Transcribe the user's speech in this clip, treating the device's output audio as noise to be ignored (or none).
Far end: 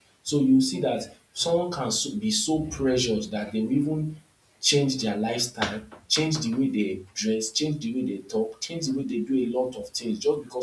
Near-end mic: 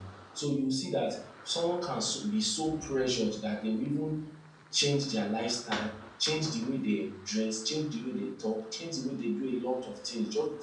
none